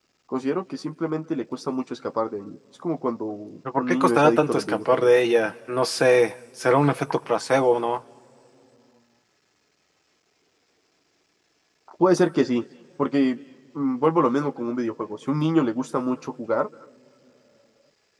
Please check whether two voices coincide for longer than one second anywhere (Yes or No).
Yes